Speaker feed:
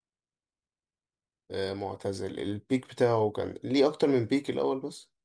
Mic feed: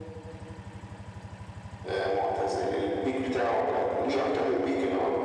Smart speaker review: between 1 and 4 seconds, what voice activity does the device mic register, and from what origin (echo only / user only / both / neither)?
echo only